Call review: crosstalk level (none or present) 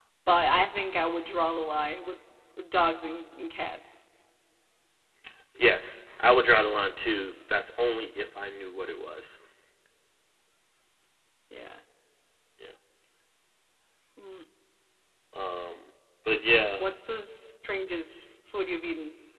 none